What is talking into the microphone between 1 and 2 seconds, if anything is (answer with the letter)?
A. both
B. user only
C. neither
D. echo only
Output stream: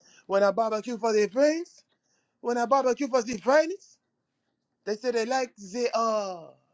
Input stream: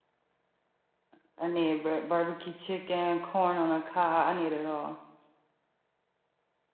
B